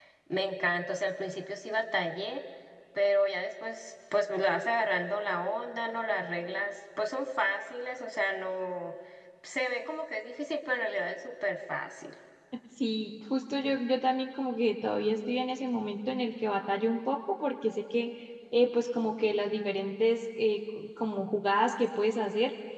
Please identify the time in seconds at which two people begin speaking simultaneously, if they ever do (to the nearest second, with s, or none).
none